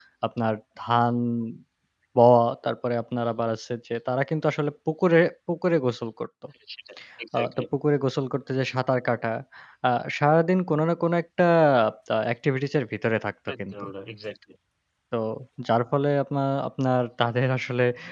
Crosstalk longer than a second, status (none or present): none